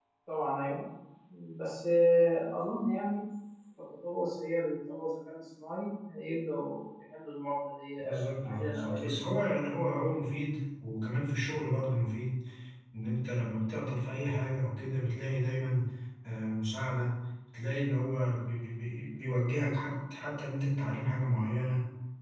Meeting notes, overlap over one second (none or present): present